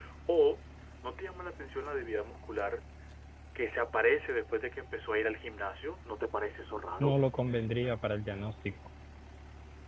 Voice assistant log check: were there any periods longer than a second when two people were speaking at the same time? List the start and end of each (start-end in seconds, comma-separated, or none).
none